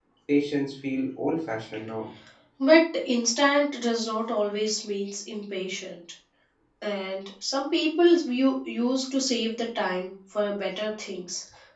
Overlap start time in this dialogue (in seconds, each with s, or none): none